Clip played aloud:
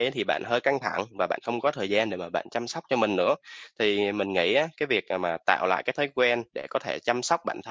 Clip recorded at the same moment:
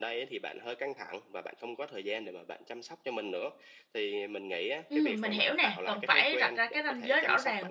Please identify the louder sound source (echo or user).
user